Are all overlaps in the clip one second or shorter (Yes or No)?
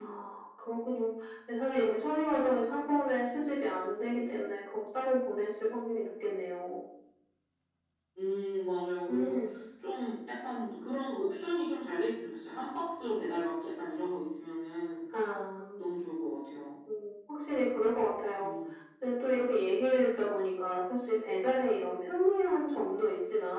Yes